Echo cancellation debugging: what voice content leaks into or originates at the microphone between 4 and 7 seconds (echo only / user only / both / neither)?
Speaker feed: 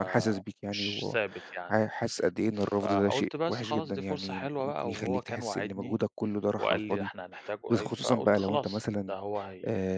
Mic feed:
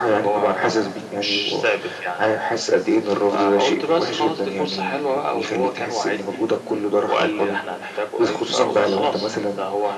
echo only